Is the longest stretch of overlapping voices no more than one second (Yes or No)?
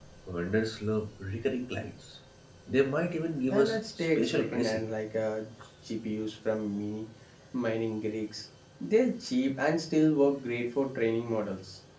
No